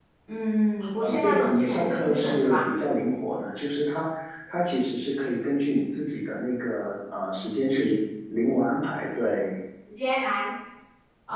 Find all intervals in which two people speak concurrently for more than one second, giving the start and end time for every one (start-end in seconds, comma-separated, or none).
1.0-2.7